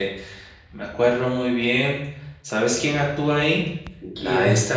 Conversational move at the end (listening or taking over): listening